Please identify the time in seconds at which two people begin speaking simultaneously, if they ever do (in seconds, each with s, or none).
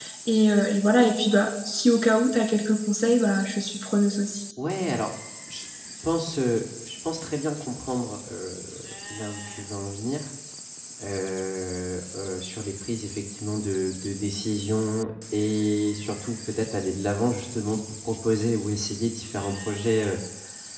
none